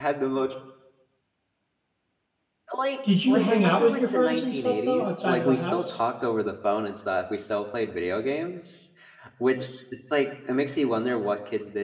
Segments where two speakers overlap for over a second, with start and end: 3.3-6.0

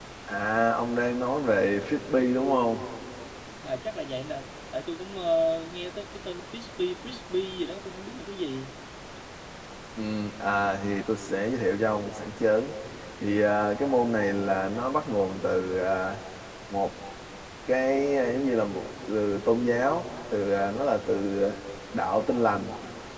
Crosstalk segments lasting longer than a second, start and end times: none

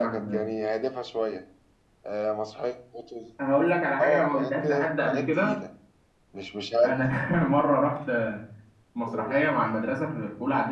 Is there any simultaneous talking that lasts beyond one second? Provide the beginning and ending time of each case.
4.0-5.6

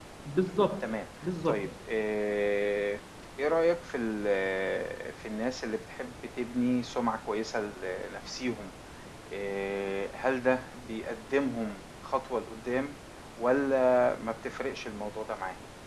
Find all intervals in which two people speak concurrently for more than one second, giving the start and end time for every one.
none

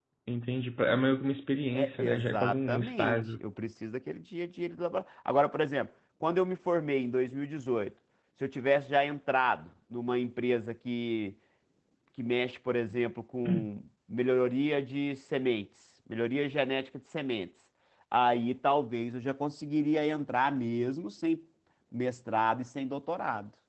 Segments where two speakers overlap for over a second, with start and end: 1.7-3.4

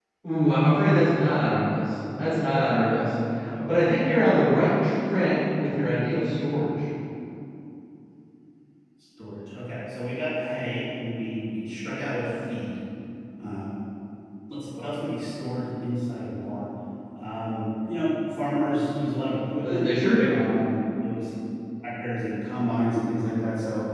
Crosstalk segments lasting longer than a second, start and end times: none

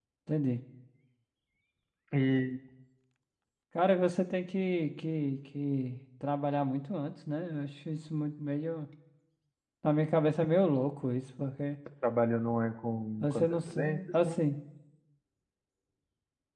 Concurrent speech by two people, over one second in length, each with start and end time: 13.2-14.4

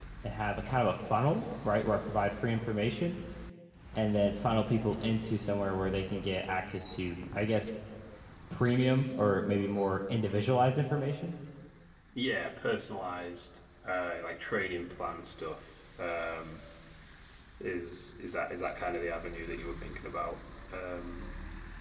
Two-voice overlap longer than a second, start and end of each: none

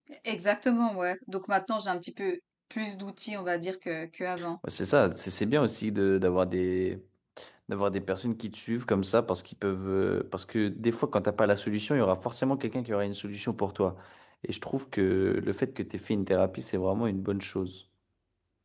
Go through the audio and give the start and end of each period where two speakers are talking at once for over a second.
none

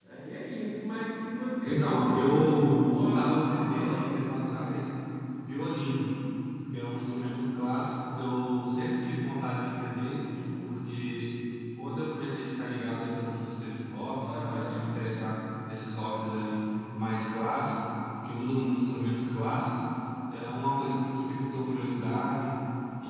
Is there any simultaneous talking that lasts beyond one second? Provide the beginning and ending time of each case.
1.6-4.1

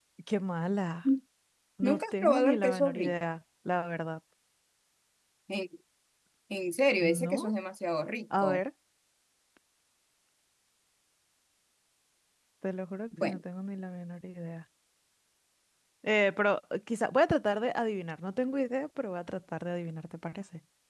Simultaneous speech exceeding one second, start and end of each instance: 1.8-3.1

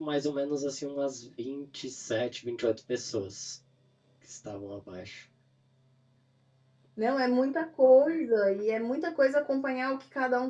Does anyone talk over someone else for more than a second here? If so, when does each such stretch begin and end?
none

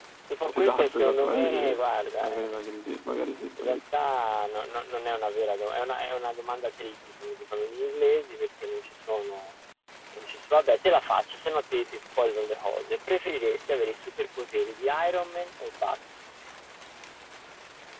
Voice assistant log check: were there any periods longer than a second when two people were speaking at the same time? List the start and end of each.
0.6-1.8

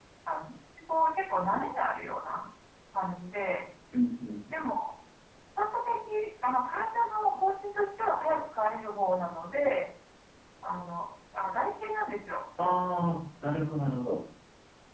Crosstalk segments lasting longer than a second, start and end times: none

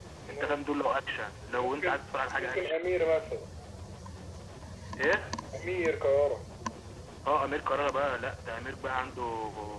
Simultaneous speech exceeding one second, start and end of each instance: 1.4-2.8

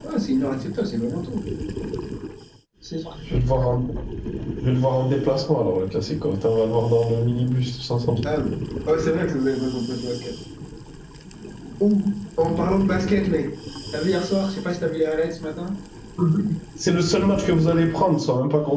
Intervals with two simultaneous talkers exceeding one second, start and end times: none

